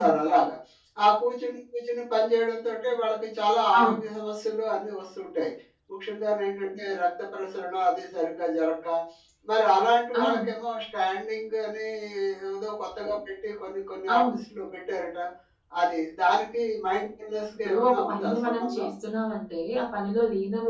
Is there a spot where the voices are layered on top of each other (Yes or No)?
Yes